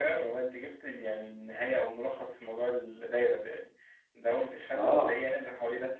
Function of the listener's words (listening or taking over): listening